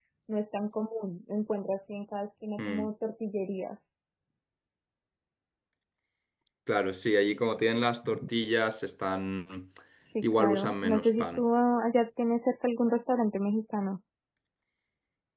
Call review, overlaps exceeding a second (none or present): present